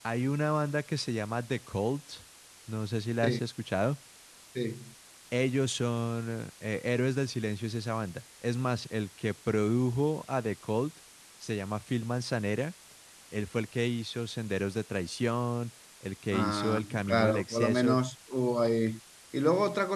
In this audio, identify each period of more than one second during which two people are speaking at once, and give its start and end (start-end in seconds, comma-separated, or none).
16.3-18.0